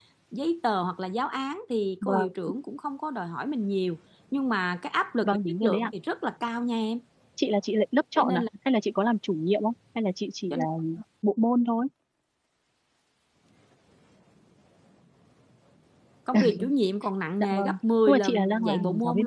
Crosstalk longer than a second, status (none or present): present